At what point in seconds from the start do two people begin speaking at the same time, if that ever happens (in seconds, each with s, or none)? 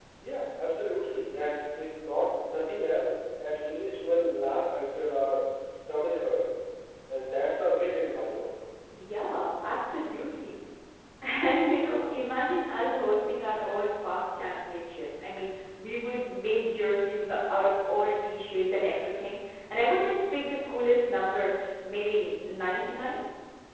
none